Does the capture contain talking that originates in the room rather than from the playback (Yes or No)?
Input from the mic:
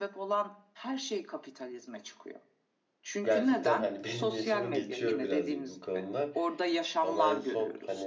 Yes